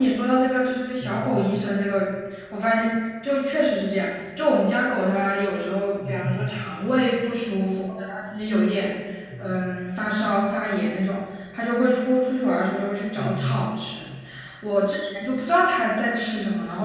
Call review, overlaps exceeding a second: none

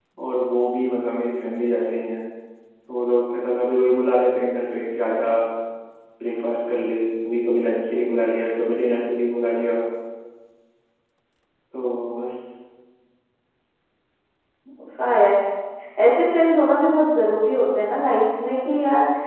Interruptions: none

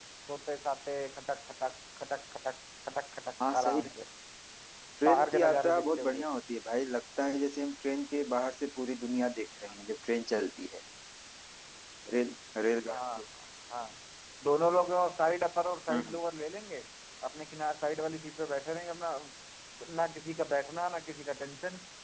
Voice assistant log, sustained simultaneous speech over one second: present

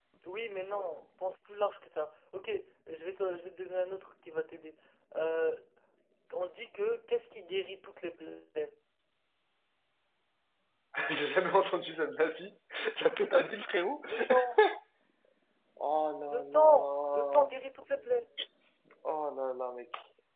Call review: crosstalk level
present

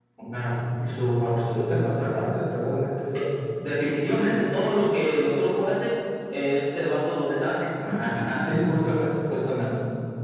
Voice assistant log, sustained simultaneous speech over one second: none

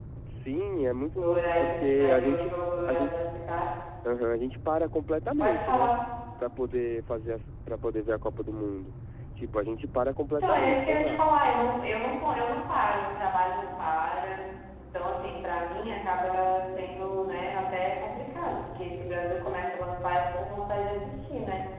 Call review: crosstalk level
present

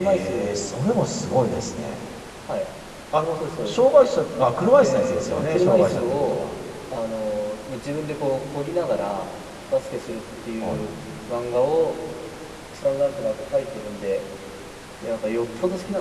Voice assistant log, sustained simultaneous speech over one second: present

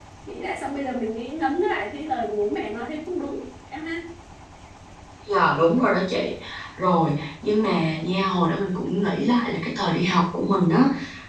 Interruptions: none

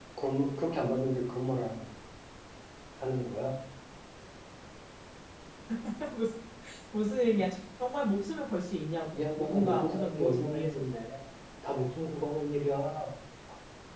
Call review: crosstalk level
present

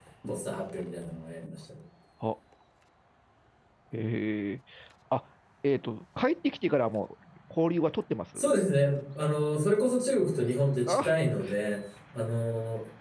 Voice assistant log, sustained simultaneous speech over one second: none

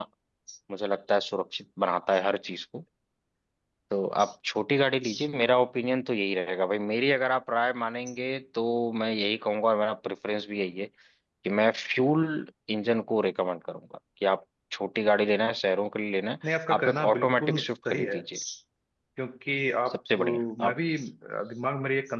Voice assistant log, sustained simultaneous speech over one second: present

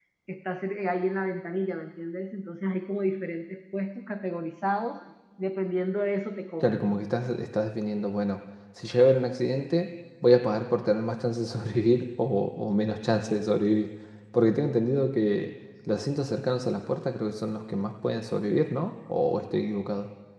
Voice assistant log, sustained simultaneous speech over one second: none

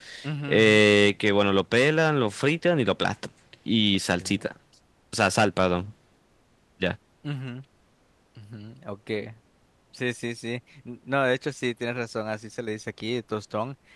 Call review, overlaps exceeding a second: none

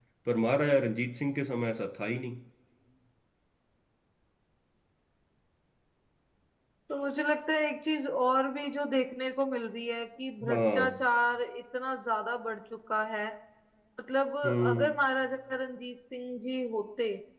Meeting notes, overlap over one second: none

